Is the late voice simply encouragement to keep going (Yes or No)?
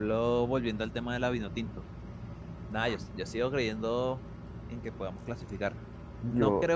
Yes